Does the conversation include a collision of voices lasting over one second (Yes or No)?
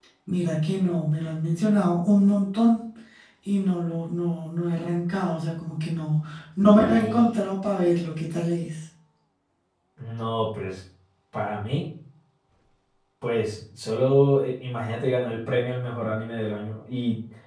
No